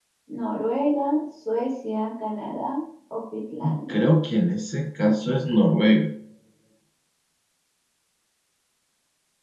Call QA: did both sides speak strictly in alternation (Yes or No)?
Yes